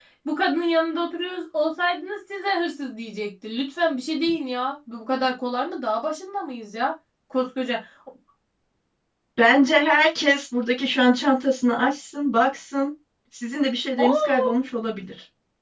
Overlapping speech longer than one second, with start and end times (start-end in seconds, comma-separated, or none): none